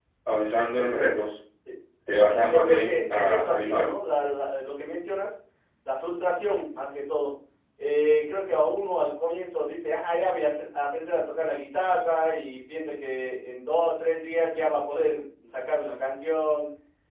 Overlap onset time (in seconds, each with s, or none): 2.3 s